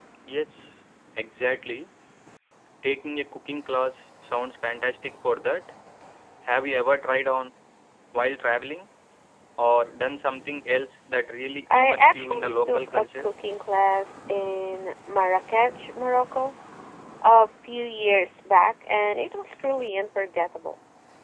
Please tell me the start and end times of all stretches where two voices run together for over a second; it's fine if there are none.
11.7-13.3

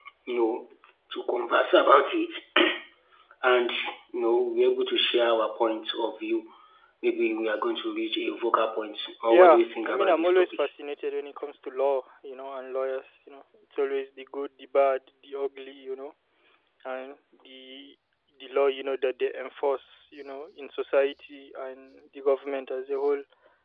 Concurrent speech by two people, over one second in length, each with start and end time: 9.3-10.6

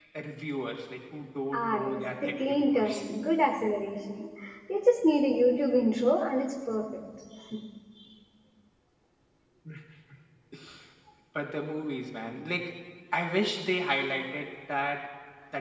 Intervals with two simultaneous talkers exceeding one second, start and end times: 1.5-3.0

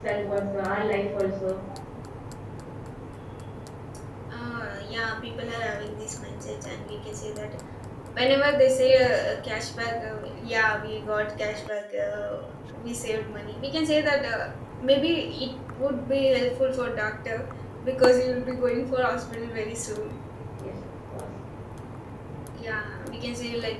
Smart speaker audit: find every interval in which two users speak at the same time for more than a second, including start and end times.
none

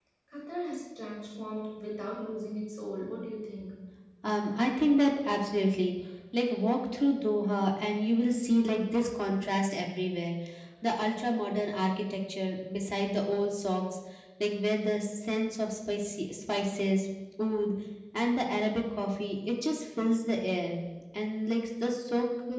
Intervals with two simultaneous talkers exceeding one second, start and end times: none

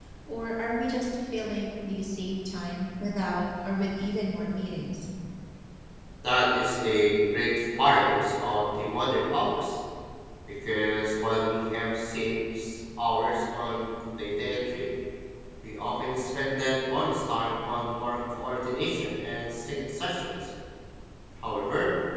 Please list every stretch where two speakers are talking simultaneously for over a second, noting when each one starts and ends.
none

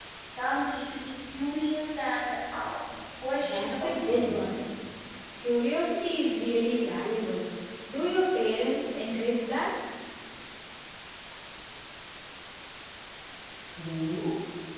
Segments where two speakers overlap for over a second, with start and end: 3.4-4.6

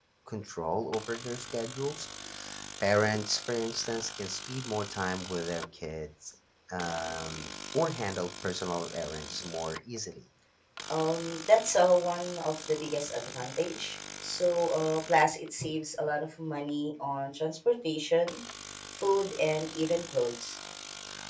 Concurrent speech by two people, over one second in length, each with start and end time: none

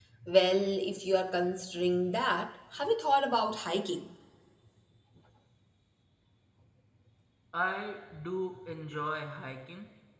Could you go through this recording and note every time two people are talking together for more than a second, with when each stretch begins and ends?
none

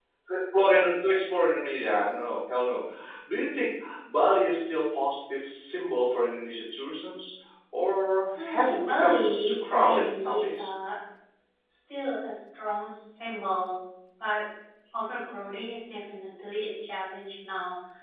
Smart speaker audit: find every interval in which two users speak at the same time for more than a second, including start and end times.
8.4-10.7

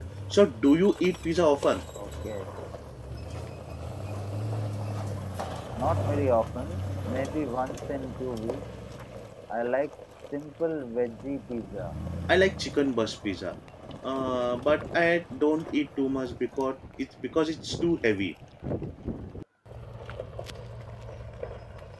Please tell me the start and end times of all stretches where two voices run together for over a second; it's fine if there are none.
none

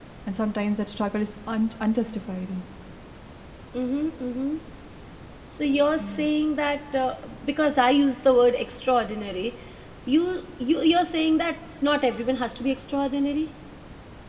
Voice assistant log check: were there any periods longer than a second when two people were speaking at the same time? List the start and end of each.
none

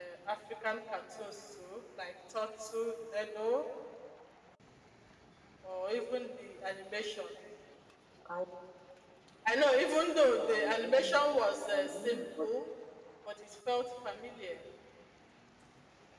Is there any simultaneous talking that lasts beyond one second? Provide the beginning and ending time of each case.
10.4-12.5

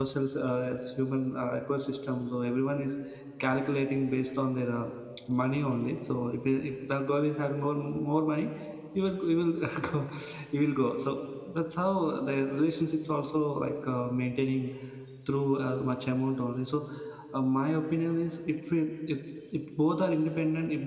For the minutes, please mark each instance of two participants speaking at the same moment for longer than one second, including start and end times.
none

